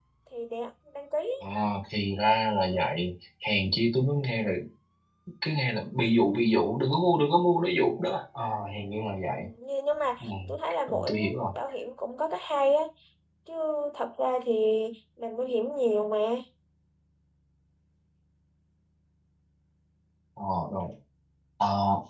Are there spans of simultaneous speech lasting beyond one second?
No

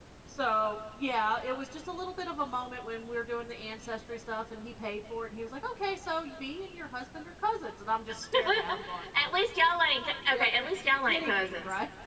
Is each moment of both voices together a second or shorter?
No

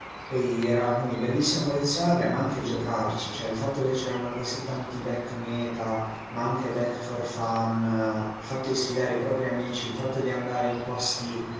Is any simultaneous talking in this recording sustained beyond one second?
No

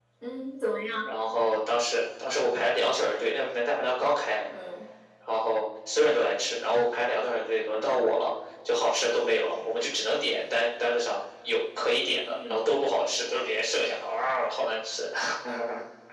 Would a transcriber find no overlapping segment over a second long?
Yes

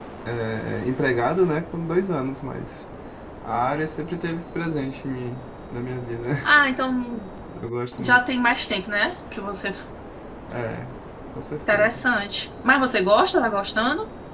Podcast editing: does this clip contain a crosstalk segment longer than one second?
No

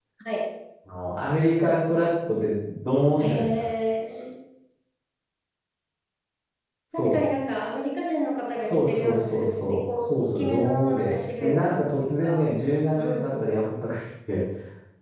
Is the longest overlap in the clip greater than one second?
Yes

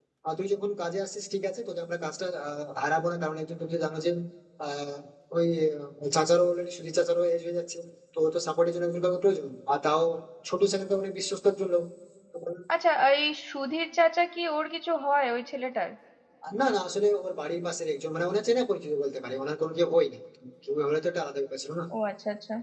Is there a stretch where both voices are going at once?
No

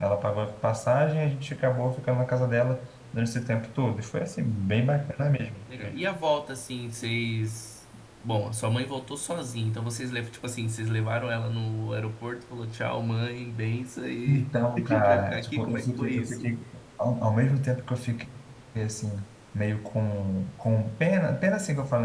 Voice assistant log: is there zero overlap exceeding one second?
No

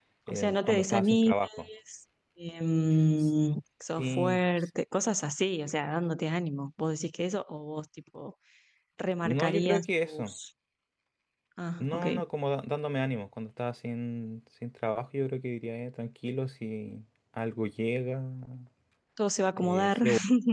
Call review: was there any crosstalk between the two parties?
Yes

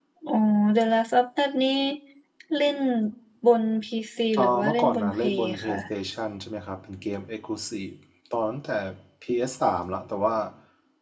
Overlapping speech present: Yes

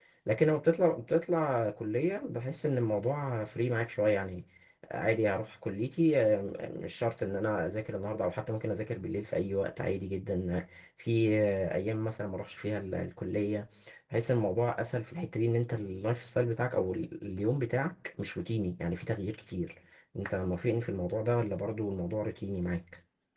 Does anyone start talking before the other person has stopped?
No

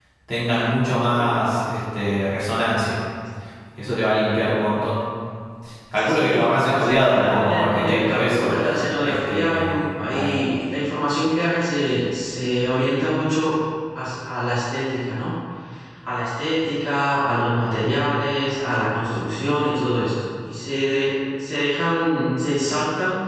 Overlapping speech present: Yes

